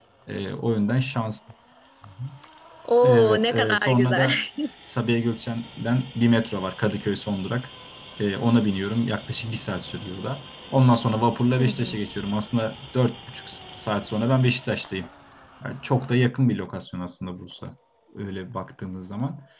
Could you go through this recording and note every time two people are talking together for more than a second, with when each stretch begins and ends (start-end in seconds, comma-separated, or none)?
3.0-4.3